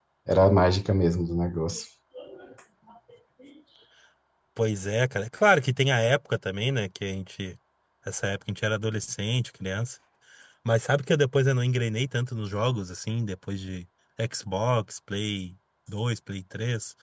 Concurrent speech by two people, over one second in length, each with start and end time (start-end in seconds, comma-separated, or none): none